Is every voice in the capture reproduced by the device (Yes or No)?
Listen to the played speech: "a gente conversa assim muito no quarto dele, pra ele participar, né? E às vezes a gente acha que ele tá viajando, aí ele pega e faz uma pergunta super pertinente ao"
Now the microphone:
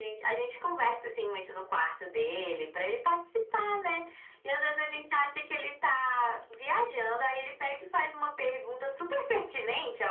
Yes